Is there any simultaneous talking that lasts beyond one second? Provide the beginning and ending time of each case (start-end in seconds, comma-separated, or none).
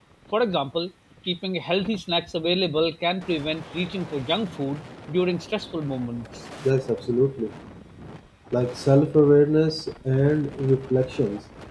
none